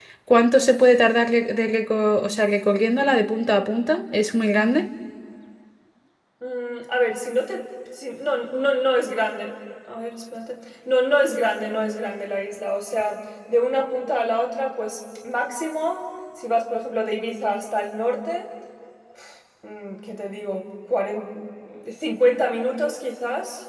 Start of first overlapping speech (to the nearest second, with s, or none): none